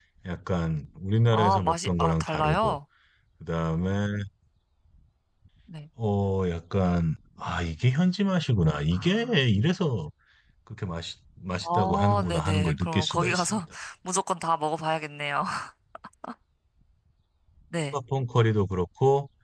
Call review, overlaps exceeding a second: present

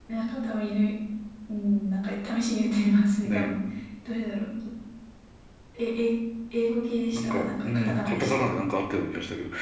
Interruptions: present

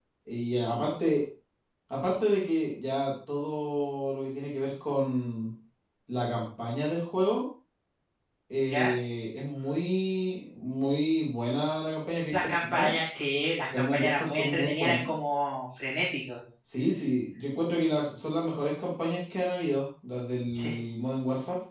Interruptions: present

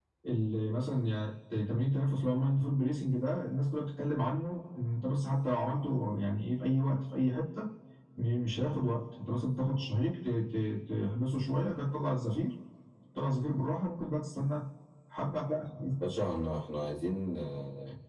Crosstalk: none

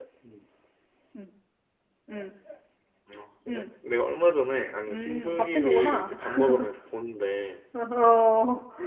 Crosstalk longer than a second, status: present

